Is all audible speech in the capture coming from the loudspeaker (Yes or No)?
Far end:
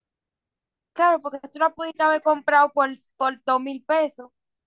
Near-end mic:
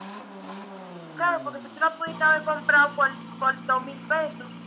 Yes